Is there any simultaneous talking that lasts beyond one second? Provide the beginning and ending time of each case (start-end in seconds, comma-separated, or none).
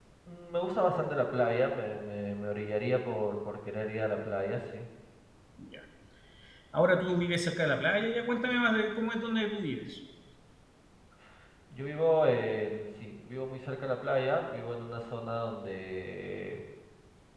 none